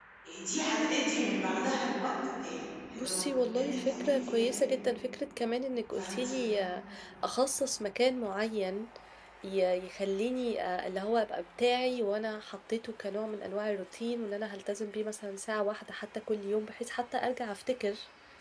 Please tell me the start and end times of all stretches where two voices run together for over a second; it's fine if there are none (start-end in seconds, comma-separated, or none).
3.0-4.6